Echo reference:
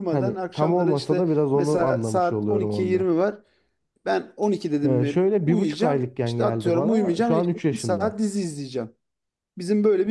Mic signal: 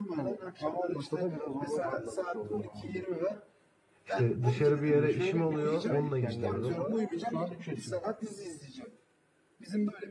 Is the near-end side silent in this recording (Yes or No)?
No